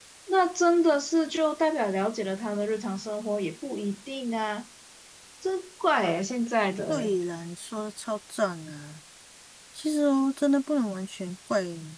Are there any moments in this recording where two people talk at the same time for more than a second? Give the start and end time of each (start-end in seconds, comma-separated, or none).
none